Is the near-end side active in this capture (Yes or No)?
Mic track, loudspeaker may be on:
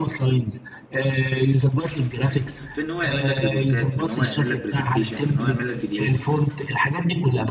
Yes